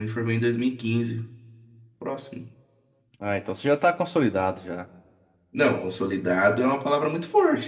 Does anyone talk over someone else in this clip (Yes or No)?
No